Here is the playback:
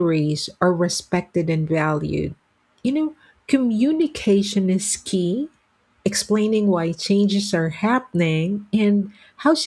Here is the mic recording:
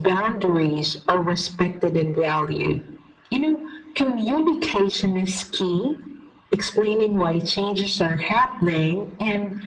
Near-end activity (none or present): none